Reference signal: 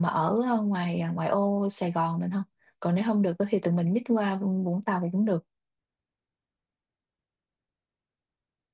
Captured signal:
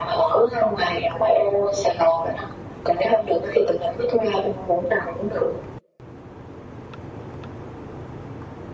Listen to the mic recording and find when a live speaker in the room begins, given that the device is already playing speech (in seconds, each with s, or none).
none